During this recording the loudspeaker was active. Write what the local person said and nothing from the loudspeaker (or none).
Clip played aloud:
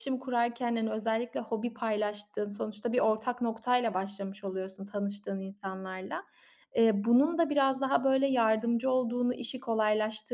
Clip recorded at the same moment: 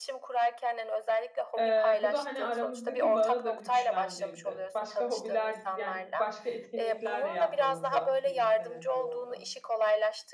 eee, bu da, hani, aramızdaki bağı da güçlendirdi. Başka hobiler, yani, başka etkinlikler de yapmamıza birlikte neden oldu.